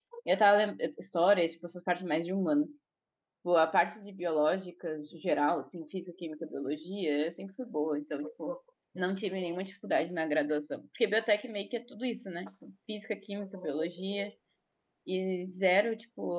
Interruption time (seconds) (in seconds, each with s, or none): none